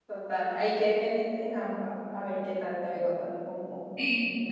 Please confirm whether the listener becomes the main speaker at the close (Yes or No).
Yes